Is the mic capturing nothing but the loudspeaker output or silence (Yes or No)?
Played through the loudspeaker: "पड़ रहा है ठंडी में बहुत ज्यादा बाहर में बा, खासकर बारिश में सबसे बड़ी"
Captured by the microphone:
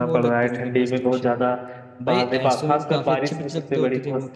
No